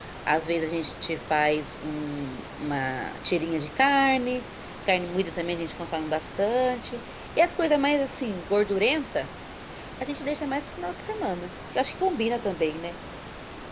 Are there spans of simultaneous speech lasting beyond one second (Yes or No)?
No